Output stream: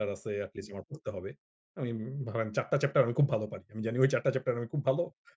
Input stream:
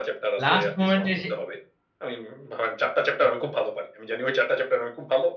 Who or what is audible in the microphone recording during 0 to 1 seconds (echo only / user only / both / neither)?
both